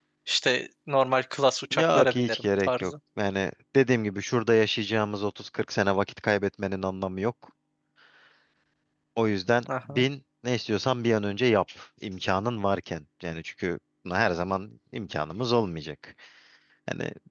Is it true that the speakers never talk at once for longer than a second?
No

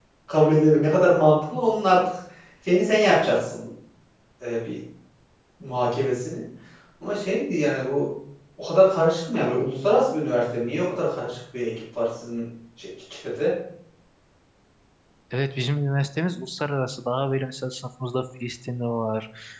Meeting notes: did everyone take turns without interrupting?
Yes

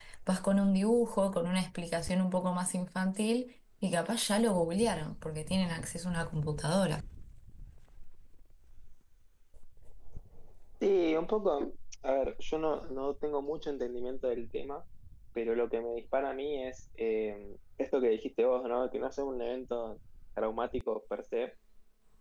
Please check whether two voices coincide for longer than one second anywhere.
No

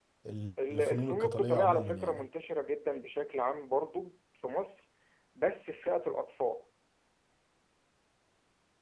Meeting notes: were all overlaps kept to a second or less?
No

